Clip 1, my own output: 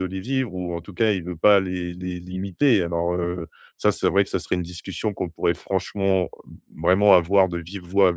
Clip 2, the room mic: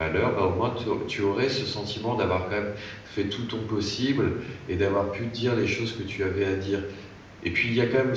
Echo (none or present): none